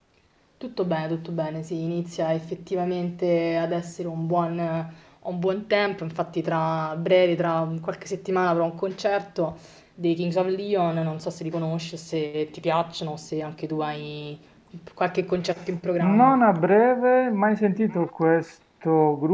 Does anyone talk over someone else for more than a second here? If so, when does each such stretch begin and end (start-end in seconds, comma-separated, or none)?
none